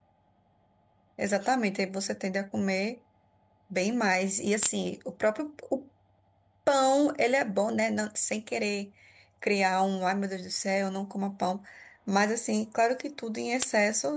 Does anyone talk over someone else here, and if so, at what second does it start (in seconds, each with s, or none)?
none